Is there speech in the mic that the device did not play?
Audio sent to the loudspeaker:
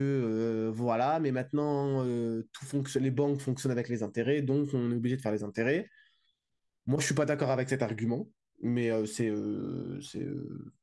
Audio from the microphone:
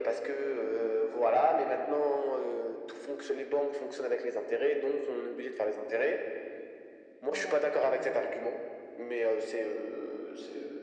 Yes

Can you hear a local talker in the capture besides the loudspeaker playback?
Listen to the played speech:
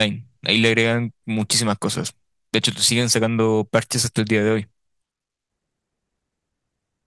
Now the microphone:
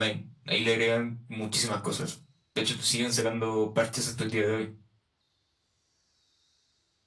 No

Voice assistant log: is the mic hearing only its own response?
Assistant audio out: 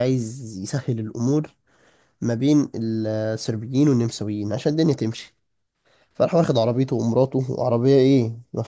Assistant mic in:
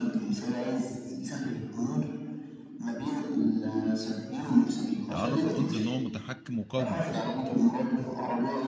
No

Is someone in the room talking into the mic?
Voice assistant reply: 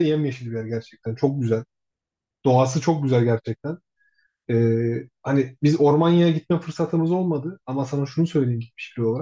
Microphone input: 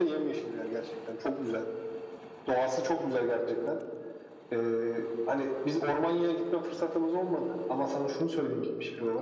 No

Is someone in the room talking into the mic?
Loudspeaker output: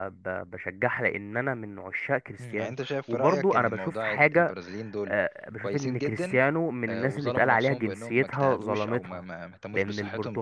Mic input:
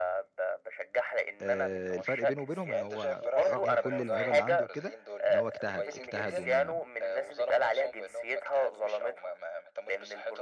Yes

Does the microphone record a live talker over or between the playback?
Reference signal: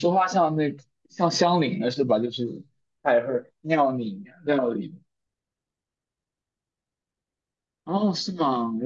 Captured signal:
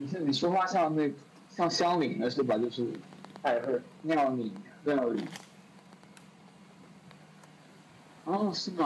No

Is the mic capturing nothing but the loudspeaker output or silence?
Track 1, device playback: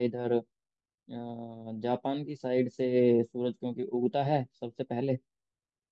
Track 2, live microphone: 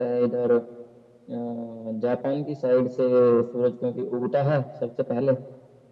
Yes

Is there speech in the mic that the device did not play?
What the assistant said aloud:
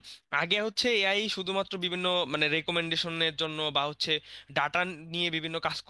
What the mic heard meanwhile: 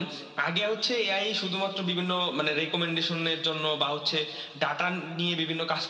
No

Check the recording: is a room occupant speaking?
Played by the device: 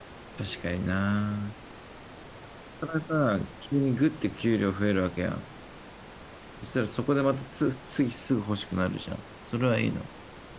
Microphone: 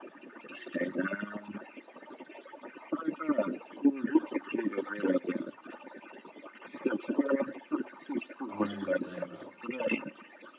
Yes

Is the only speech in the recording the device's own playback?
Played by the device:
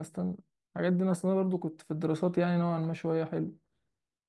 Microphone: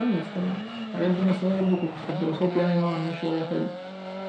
Yes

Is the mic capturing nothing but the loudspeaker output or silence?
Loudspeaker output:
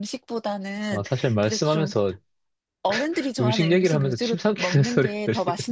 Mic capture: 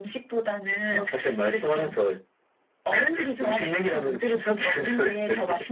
Yes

